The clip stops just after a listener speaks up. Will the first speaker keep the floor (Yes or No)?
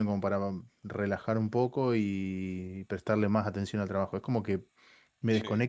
Yes